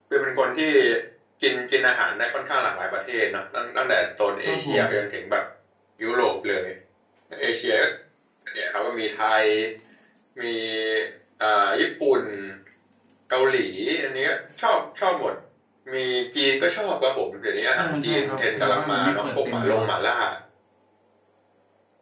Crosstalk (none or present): present